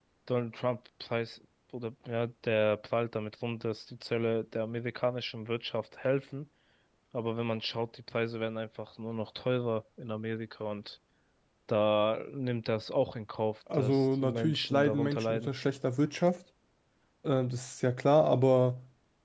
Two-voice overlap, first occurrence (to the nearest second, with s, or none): 14 s